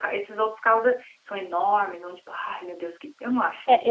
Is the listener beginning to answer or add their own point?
Yes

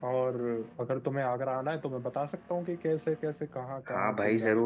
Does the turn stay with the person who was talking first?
No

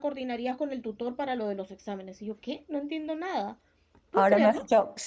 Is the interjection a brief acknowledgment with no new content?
No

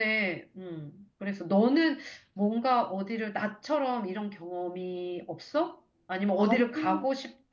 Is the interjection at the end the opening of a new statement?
No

